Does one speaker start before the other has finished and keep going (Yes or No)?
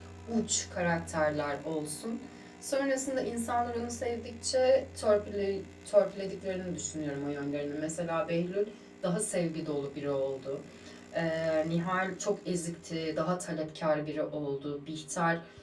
No